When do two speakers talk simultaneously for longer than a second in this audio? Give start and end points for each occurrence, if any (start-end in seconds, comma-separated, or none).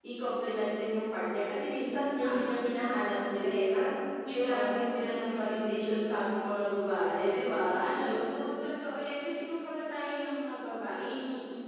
4.3-5.9